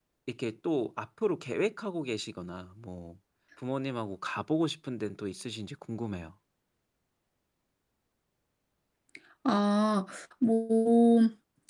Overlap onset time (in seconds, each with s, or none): none